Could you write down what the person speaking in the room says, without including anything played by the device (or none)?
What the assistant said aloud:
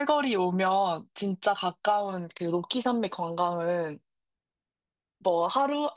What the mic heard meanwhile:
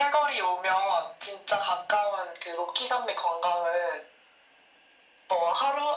none